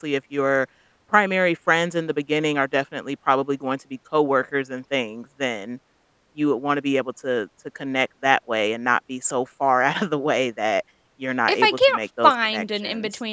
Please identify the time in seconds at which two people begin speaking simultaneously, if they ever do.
11.5 s

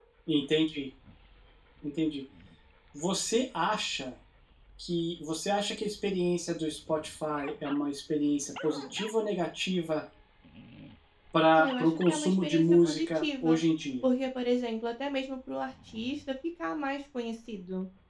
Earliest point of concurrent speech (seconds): 11.5 s

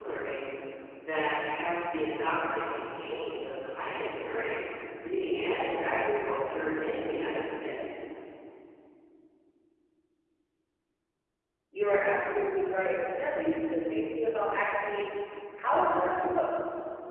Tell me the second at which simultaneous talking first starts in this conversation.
none

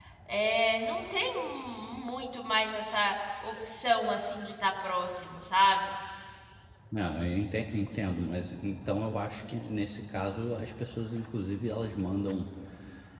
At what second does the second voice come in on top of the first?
none

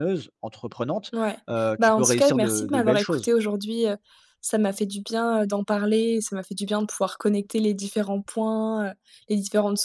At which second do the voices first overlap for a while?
1.8 s

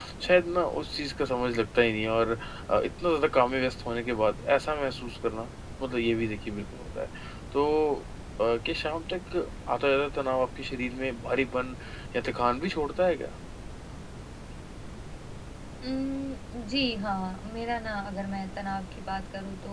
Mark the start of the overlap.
none

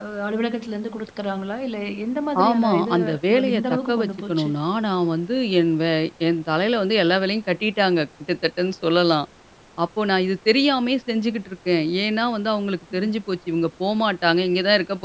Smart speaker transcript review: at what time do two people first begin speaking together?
2.4 s

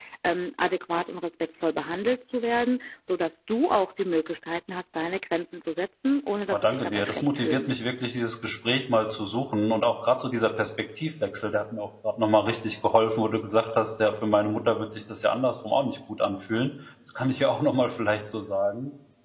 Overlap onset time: 6.5 s

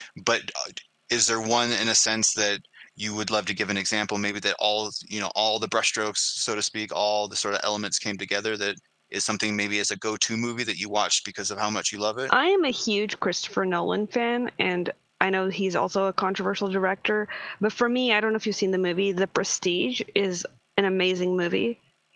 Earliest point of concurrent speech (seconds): none

